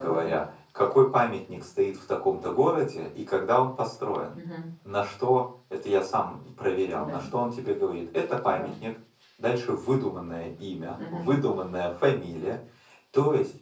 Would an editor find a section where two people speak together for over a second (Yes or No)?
No